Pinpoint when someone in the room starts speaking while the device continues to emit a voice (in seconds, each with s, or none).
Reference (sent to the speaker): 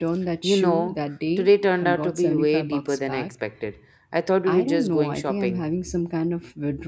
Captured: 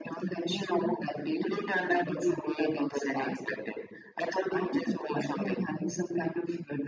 none